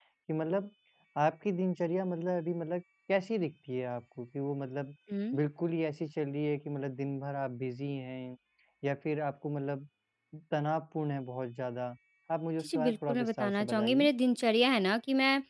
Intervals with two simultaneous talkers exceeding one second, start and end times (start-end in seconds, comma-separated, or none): 12.6-14.1